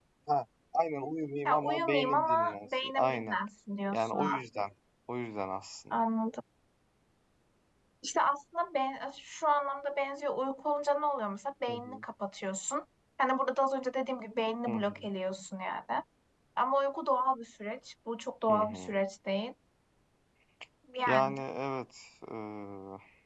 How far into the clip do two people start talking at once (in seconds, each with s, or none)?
1.4 s